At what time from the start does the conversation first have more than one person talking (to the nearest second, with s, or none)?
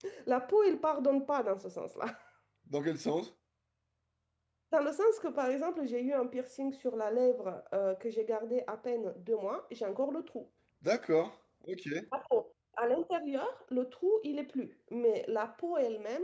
none